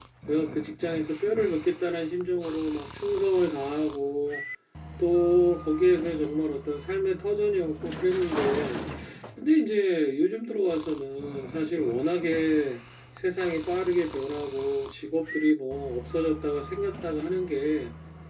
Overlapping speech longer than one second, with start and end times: none

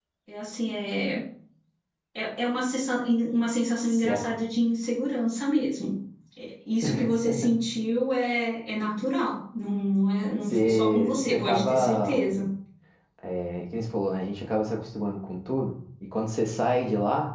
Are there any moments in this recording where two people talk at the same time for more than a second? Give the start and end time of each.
10.4-12.2

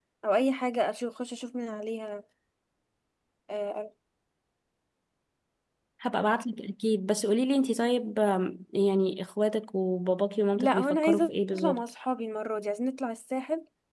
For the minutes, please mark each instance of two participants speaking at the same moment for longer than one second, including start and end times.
10.6-11.8

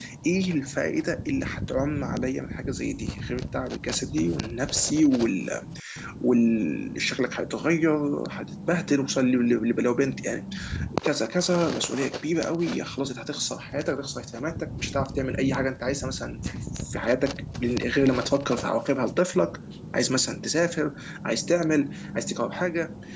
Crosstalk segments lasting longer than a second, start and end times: none

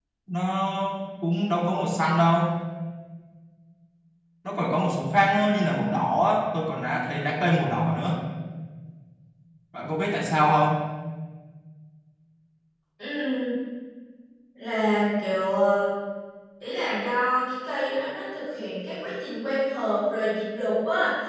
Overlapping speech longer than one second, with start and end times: none

